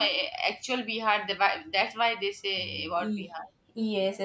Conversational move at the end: taking over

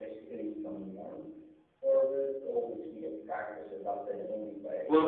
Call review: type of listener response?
taking over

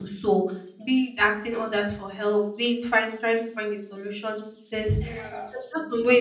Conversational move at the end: listening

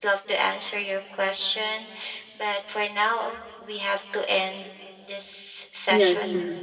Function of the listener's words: taking over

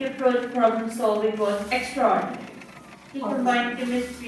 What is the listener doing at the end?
listening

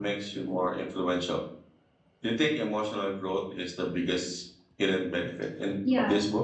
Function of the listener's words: taking over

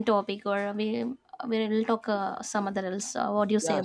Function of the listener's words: taking over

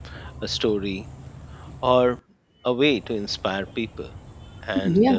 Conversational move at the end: listening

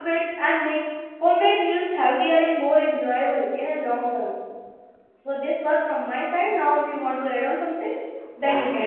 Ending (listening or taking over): taking over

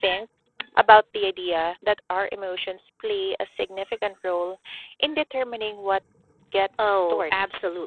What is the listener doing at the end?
taking over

